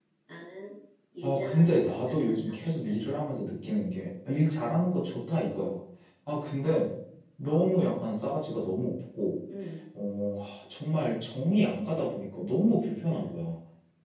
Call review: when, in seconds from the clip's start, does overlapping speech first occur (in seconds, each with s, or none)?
1.2 s